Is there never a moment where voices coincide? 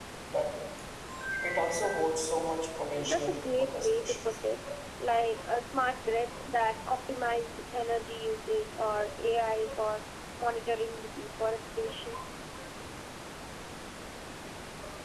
No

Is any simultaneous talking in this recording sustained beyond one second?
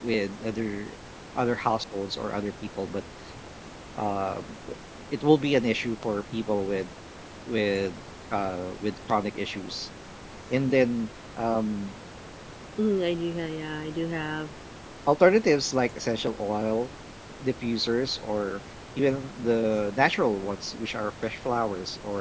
No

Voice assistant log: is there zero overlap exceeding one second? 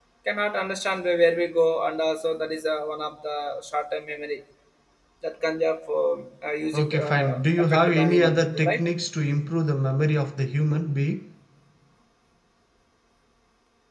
No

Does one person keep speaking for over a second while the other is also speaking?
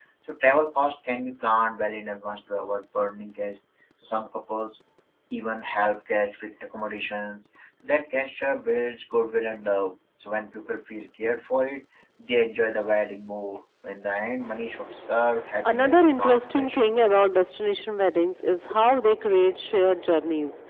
Yes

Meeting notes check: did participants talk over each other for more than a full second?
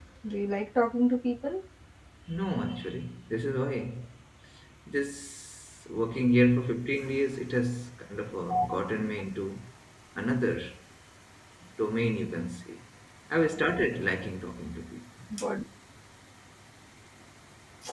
No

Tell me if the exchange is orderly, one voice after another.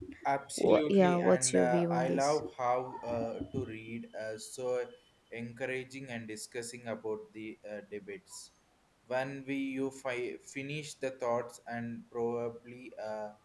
No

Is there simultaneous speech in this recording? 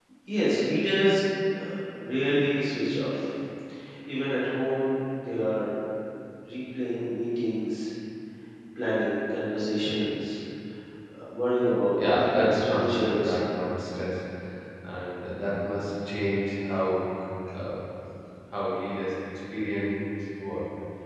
Yes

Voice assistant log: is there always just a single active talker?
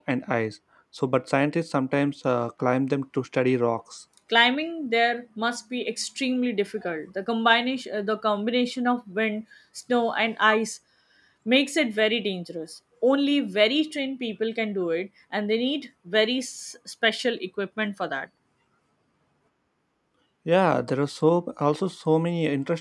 Yes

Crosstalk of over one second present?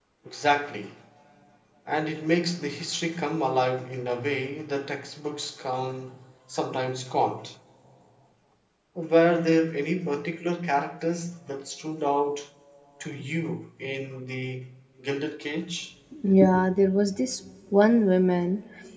No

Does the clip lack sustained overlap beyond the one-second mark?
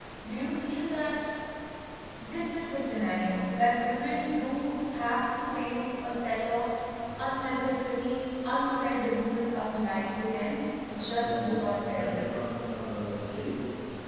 No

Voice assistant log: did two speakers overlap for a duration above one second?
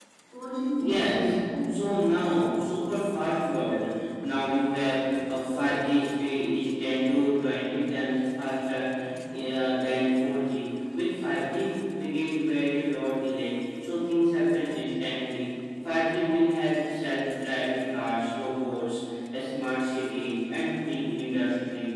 Yes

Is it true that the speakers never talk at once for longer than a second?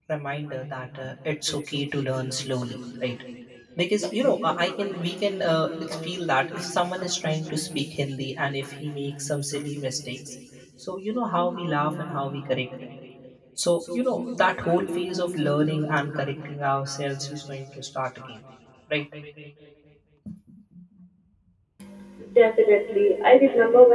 Yes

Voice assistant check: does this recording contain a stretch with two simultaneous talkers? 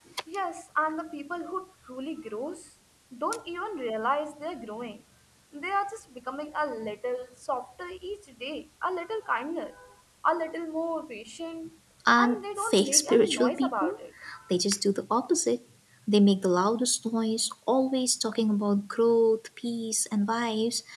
Yes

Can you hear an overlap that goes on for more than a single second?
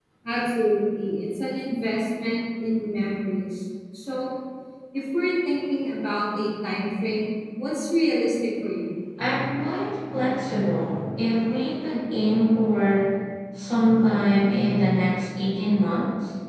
No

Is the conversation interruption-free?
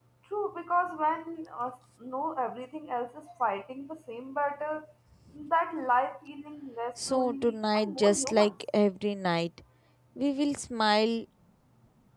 No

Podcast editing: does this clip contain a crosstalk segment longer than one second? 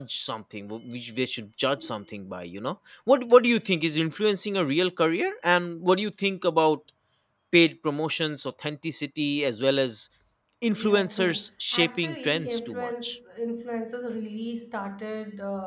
Yes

